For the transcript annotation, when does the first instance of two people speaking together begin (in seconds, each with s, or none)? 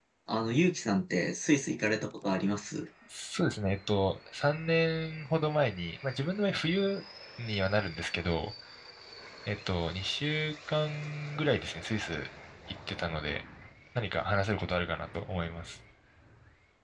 none